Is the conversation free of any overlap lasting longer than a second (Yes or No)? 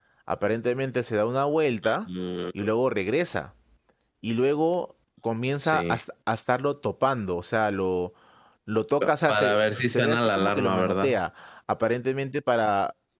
No